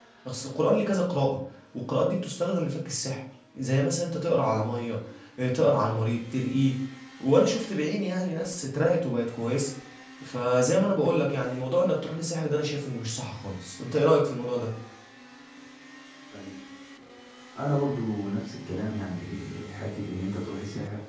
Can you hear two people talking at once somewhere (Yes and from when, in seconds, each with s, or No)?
No